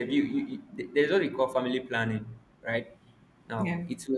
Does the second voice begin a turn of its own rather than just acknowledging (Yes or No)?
No